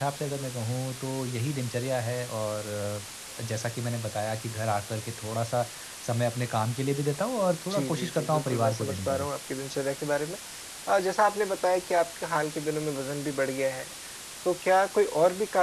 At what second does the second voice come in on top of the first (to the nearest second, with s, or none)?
7 s